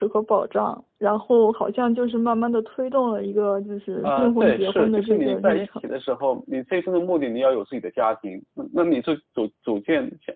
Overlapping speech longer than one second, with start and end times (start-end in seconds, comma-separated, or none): 4.0-5.7